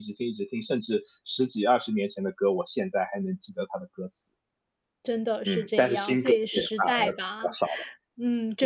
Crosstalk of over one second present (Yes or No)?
Yes